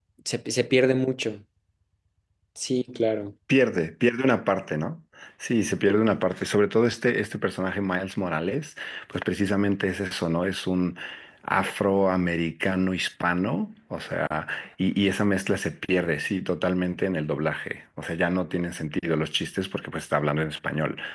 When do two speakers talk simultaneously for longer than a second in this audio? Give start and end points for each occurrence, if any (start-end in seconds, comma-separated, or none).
none